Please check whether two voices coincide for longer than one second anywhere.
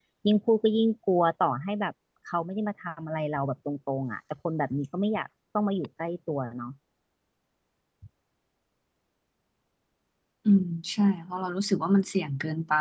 No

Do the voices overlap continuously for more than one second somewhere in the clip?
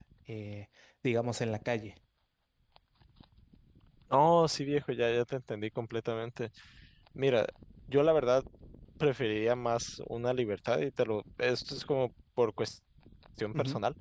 No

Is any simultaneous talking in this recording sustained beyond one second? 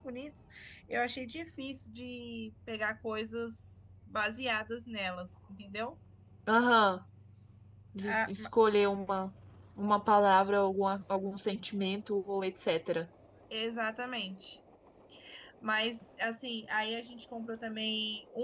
No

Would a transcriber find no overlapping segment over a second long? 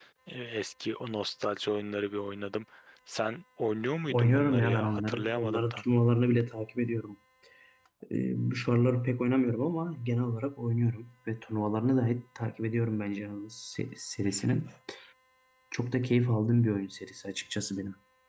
No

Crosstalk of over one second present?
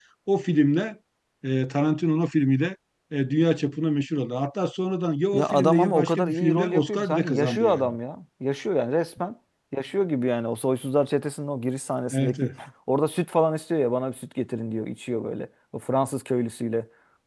Yes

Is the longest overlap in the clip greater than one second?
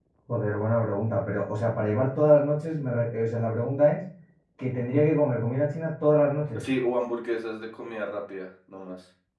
No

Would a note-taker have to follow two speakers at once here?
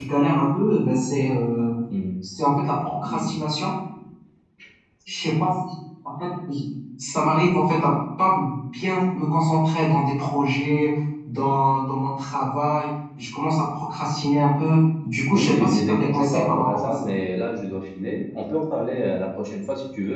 Yes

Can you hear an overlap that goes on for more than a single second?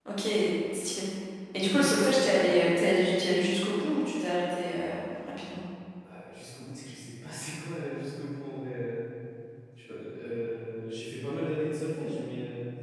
No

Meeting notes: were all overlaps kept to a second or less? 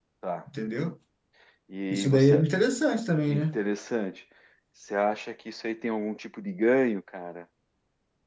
Yes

